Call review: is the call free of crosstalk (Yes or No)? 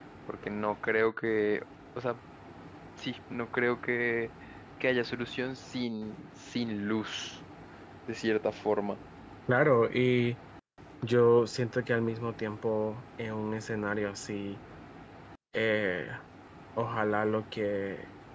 Yes